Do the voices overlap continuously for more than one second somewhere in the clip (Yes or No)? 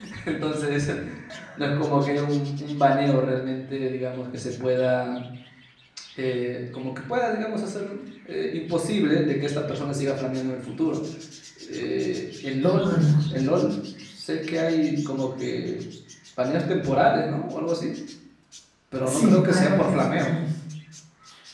Yes